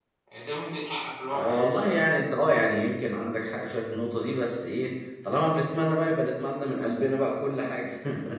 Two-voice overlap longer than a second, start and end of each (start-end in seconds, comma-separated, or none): none